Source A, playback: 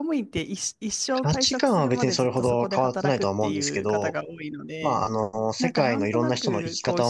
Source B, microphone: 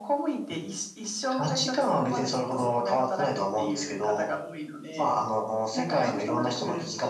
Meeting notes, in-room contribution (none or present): present